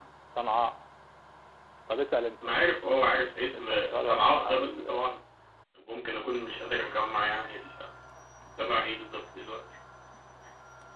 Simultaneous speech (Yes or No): Yes